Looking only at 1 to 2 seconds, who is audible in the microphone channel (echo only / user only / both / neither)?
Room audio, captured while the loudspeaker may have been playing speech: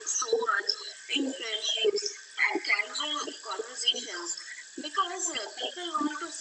echo only